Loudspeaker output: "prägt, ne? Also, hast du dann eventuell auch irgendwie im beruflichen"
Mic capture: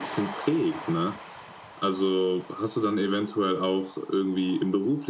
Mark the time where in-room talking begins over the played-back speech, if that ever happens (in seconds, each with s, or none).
none